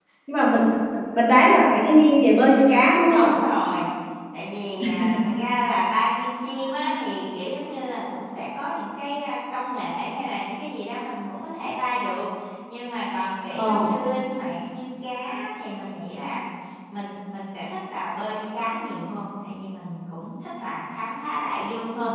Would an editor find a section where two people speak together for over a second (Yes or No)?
No